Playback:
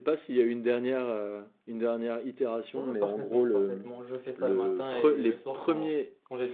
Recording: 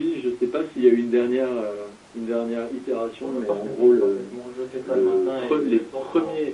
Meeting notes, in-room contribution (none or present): none